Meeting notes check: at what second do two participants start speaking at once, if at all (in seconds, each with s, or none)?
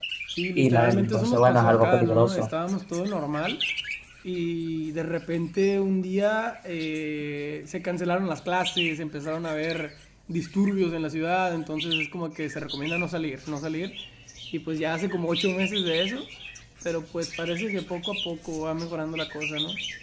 0.6 s